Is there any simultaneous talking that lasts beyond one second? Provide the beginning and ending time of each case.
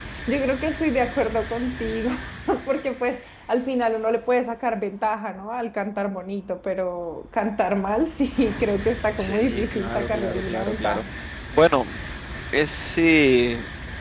9.2-11.0

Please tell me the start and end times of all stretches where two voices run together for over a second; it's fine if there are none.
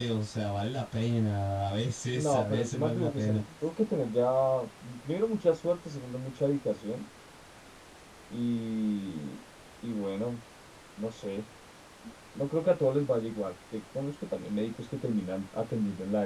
2.1-3.4

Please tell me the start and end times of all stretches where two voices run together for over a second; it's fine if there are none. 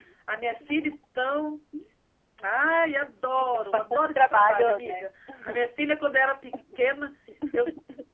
3.5-5.0

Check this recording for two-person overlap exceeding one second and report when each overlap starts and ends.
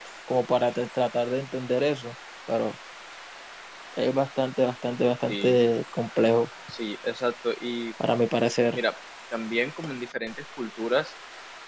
none

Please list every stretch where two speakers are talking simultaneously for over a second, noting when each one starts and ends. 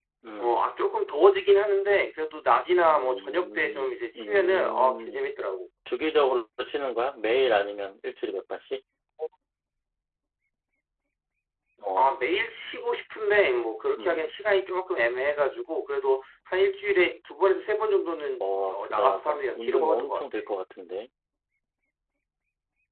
2.9-5.3, 18.4-20.4

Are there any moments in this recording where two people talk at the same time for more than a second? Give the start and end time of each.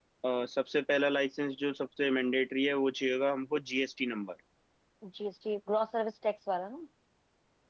none

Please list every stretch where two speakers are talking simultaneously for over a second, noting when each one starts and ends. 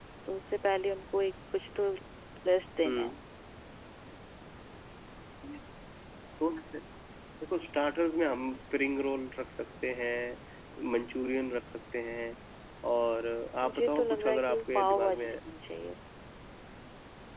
13.6-15.4

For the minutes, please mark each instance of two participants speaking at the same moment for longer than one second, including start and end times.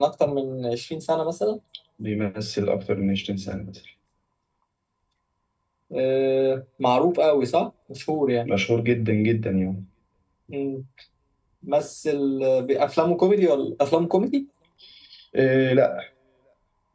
none

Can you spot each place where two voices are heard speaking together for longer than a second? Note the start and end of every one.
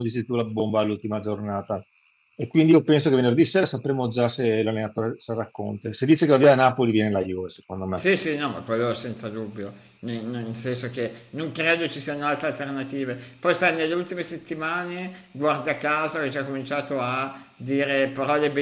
none

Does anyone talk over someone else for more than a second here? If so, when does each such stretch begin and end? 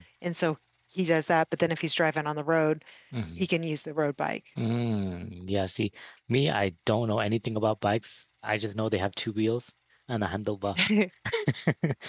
none

